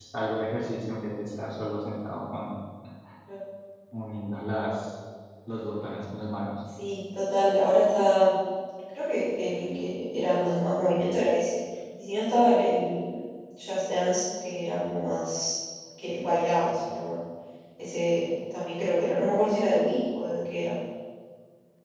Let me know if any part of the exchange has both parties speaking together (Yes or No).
No